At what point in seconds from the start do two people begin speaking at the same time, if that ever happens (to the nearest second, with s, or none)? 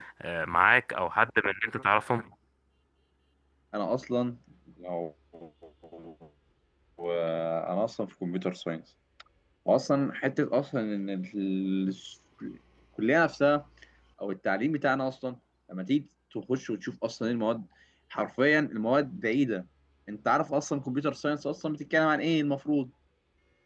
none